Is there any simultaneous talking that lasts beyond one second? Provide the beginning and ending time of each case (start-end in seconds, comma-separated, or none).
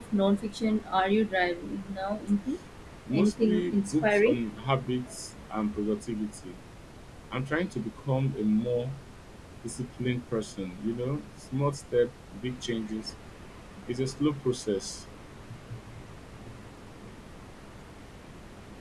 3.1-4.4